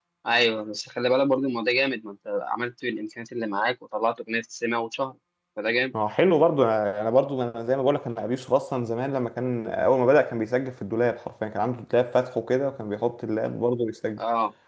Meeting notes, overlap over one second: none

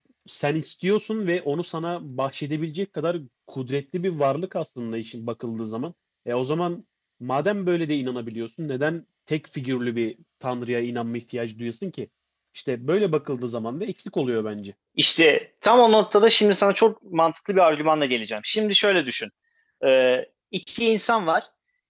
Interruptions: none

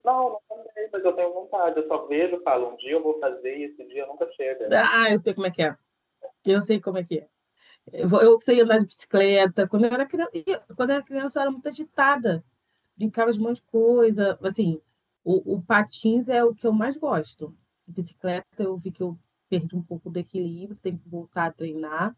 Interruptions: none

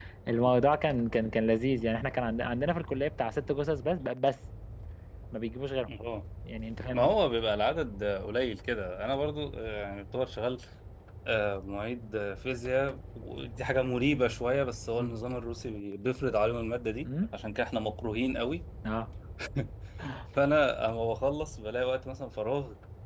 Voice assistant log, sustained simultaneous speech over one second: none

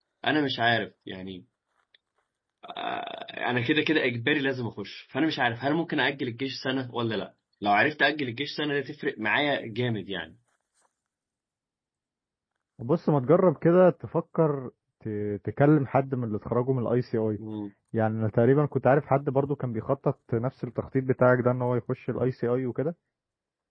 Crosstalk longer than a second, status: none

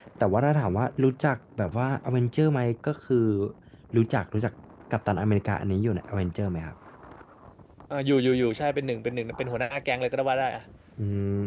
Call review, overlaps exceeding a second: none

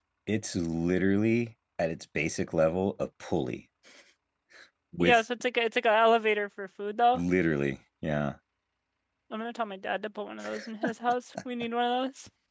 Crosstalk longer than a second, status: none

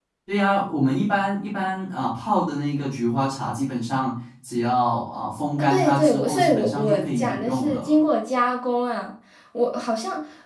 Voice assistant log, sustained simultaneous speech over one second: present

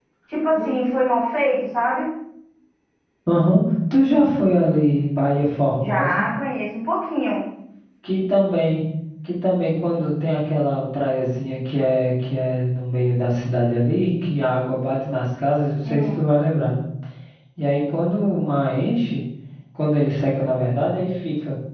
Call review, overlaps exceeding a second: none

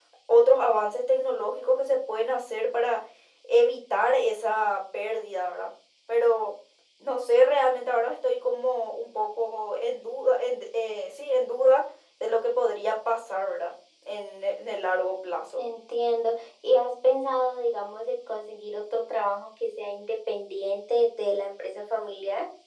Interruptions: none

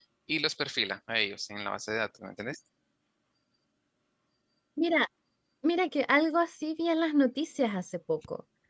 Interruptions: none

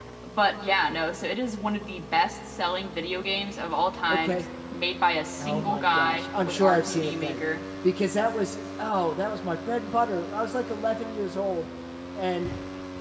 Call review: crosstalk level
present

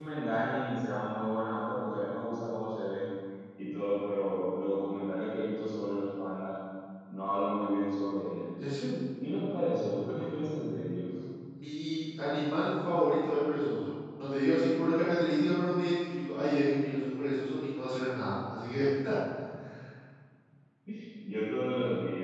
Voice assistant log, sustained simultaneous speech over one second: none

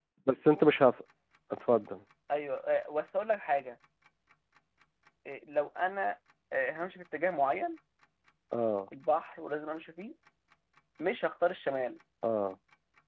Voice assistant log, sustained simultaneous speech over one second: none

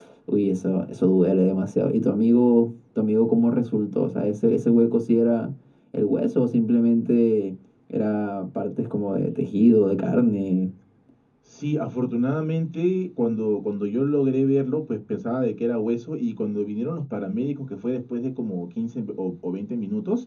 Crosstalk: none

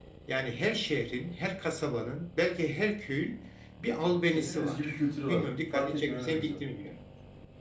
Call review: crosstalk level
present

